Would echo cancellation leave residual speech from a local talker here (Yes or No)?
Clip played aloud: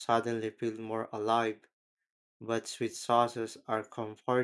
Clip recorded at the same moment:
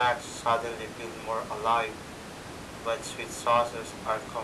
No